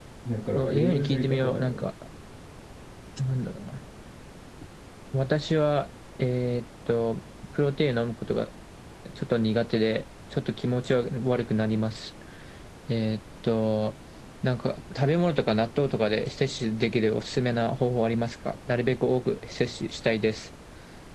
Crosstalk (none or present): present